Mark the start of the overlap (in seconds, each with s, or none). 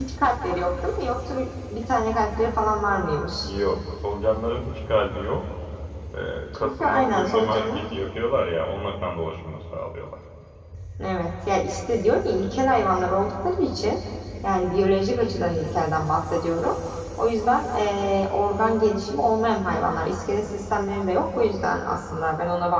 6.6 s